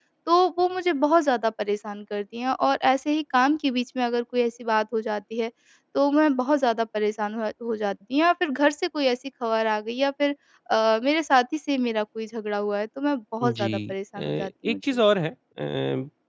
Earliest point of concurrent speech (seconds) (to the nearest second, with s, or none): 13 s